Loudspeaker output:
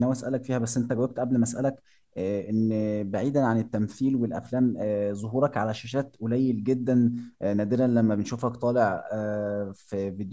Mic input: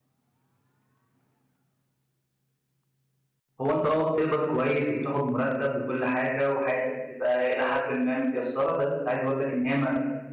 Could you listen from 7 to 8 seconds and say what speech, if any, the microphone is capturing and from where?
user only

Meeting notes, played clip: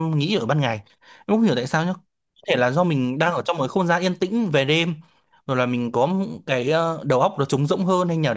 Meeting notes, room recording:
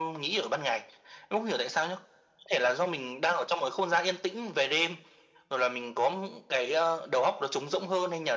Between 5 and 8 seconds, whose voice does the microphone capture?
echo only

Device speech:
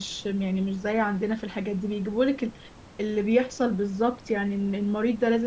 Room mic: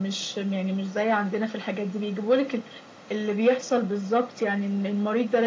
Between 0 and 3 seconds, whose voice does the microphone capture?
echo only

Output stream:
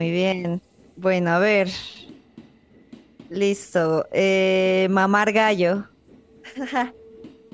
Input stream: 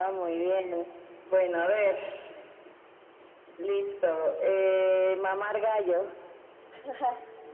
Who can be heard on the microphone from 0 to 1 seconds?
echo only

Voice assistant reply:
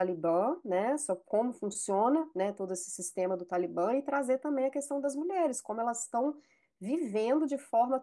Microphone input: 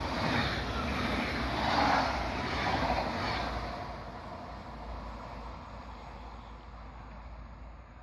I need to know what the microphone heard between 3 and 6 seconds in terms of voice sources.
neither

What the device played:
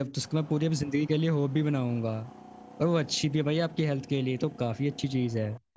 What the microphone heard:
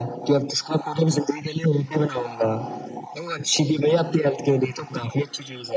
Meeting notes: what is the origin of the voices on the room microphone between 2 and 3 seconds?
echo only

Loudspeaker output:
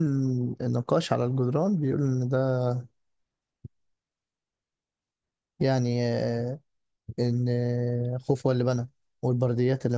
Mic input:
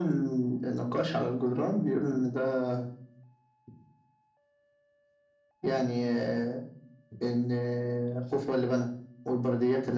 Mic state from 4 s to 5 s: neither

